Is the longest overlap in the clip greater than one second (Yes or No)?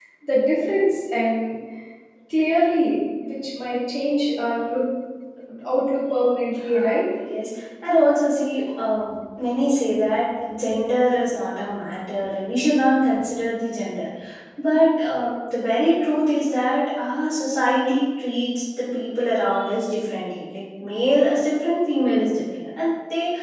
No